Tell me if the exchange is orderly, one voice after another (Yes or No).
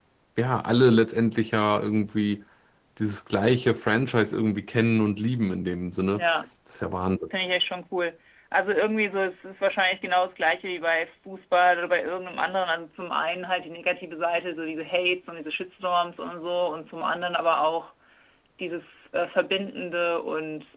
Yes